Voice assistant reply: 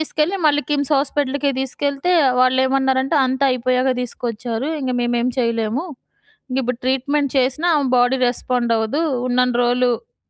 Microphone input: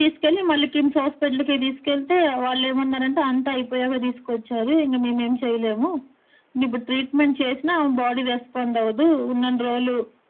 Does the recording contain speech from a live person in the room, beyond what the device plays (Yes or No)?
No